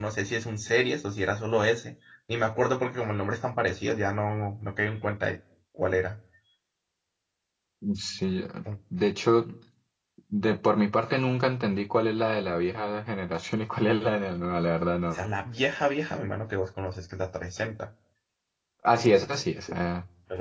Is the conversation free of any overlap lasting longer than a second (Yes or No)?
Yes